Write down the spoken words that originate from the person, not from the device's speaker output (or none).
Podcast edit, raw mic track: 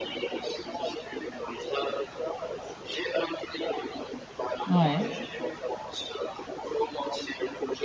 Ouais.